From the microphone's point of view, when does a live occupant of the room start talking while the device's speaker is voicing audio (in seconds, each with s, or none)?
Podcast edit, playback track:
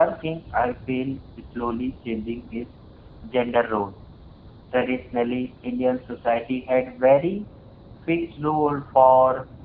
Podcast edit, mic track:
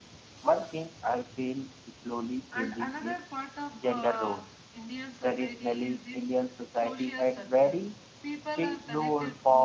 2.5 s